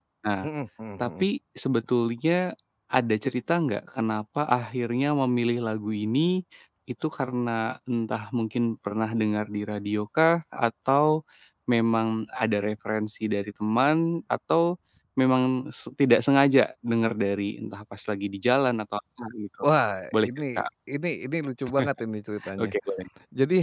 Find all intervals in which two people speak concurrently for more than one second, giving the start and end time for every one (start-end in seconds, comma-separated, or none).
none